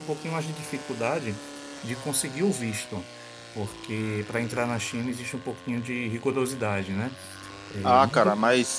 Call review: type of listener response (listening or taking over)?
taking over